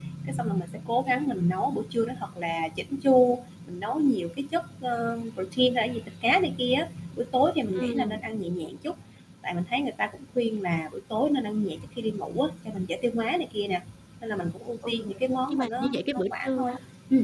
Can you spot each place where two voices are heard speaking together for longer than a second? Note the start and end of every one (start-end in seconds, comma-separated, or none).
15.5-16.7